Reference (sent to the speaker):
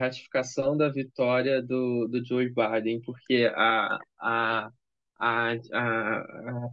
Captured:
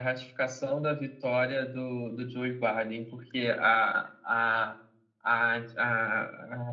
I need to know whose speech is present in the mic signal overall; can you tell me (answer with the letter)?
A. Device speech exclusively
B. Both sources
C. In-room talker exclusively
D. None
A